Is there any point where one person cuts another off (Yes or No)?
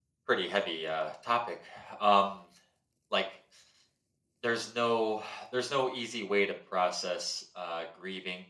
No